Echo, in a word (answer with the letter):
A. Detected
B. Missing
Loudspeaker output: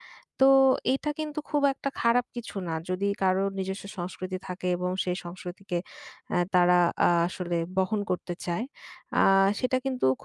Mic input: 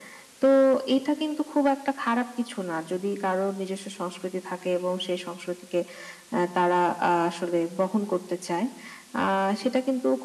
A